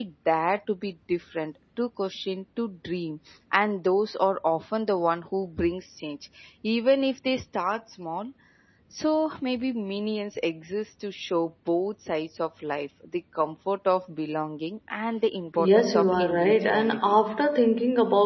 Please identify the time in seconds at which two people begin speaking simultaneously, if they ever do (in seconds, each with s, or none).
15.6 s